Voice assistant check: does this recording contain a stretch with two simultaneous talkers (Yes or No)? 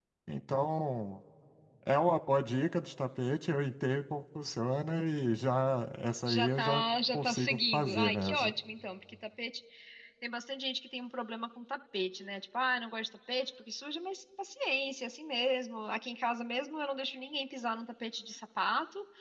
Yes